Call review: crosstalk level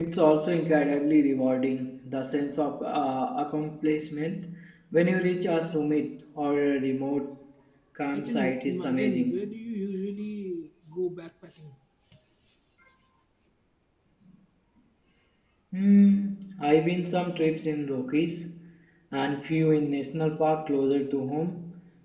present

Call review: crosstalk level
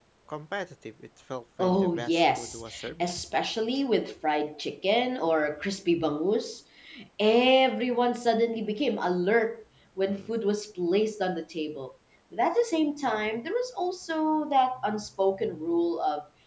present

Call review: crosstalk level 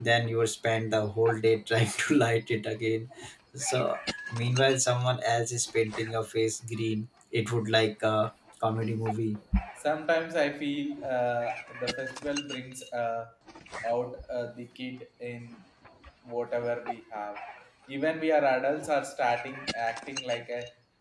none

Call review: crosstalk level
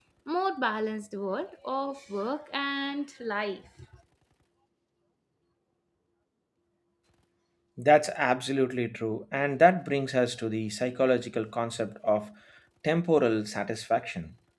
none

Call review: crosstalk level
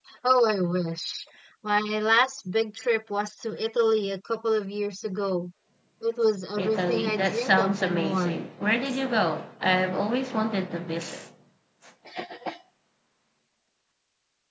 present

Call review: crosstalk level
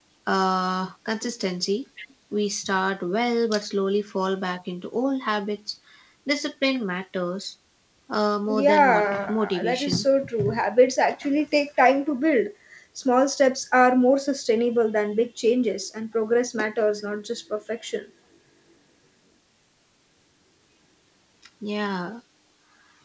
present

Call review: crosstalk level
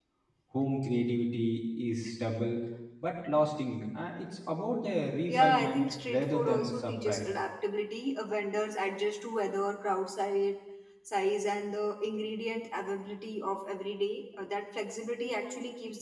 present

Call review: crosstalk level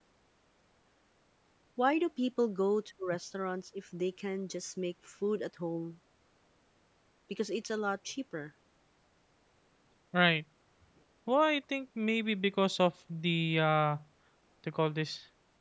none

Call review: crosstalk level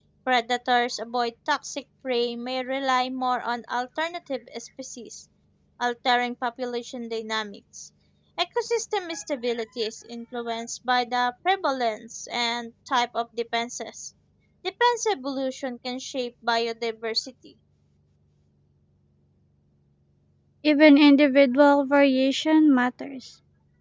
none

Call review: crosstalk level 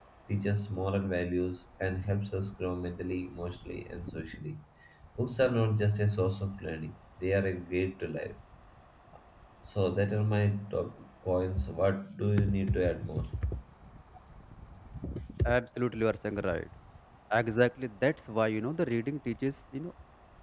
none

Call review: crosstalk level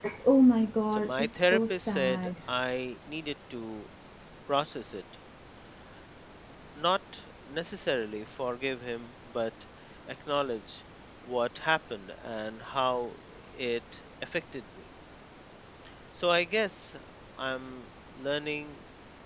present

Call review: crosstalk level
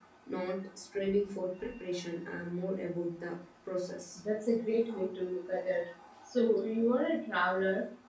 none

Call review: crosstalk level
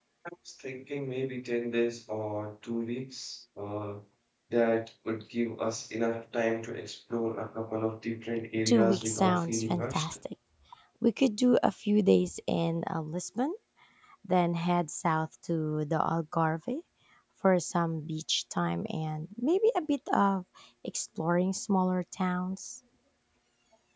present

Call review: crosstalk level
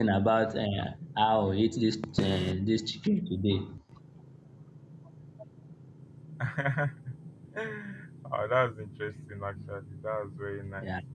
none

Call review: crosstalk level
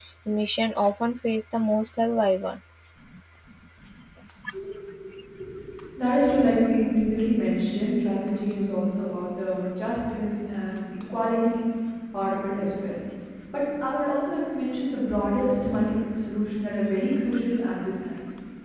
none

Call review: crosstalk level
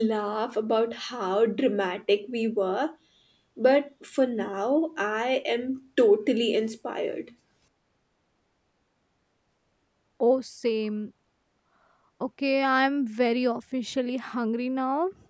none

